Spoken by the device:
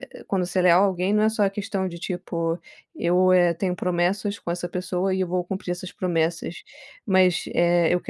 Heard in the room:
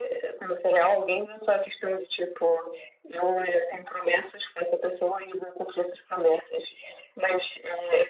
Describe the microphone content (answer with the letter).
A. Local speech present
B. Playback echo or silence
B